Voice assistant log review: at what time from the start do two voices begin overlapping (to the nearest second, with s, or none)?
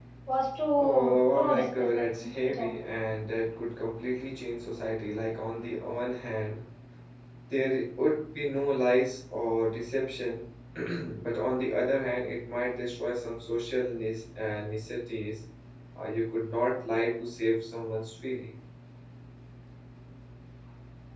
1 s